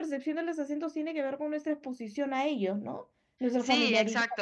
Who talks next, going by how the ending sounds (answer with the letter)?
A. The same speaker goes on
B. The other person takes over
B